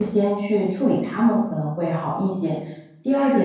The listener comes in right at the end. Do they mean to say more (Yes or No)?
No